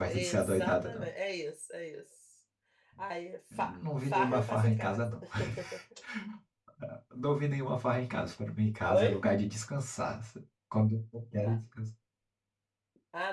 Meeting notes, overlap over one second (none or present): present